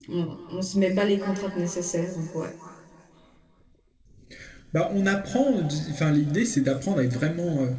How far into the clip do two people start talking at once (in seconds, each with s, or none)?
none